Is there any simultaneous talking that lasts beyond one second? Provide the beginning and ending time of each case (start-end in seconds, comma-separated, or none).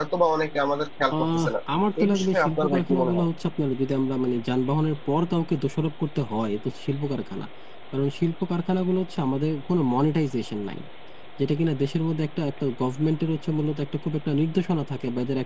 2.0-3.3